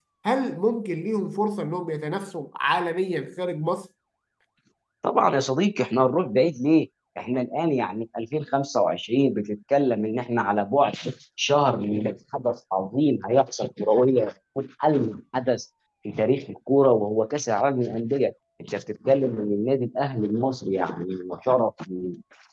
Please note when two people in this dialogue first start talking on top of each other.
none

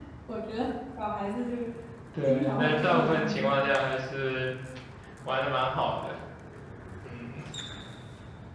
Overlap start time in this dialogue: 2 s

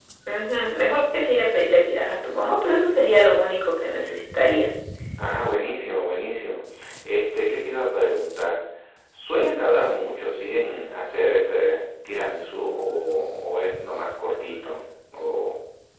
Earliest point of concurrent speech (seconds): none

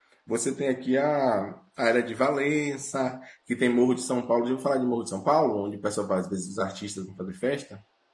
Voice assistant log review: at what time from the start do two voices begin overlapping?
none

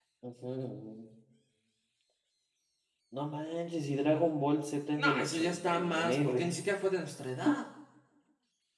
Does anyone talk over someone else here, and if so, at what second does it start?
5 s

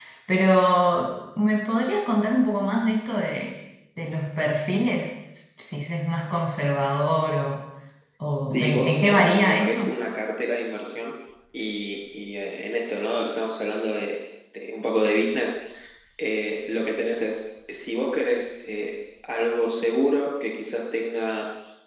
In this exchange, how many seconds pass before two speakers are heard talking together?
9 s

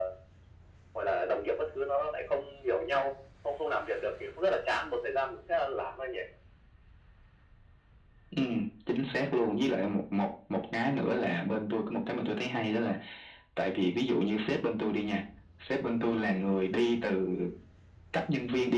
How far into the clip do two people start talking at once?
none

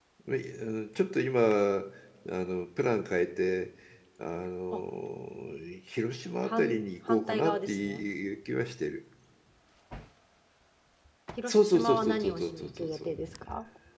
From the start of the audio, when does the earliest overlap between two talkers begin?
6 s

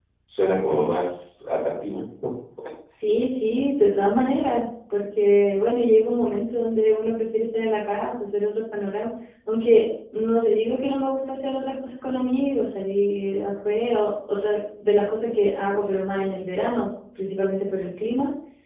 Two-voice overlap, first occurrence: none

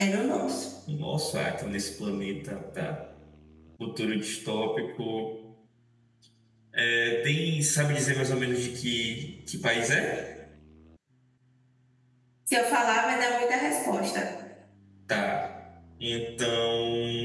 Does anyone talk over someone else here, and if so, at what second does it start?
none

